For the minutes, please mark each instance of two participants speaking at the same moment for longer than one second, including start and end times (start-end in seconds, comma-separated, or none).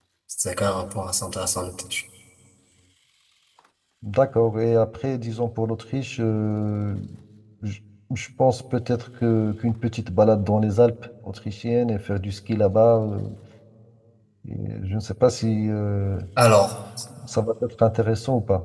none